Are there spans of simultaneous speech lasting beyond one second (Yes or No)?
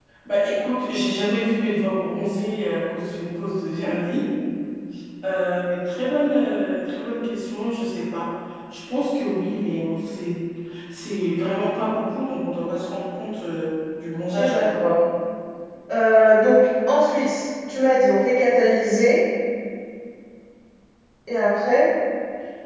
No